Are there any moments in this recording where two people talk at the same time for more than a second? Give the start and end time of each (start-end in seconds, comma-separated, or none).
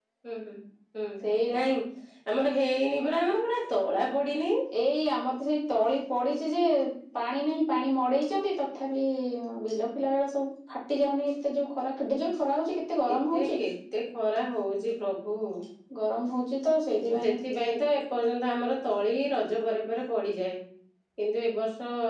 none